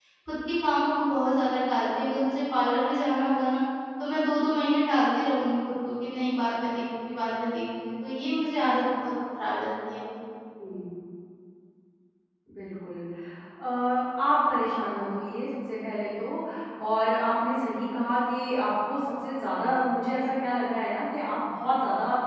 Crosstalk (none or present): none